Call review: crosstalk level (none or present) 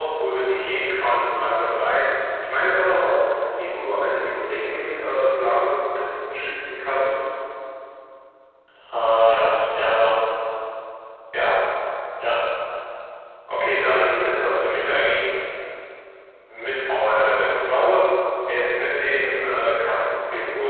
none